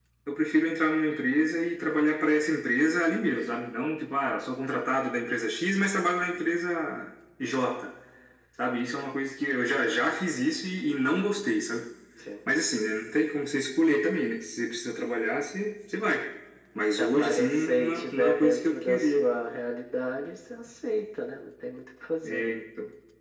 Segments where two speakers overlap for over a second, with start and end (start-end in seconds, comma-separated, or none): 17.0-19.2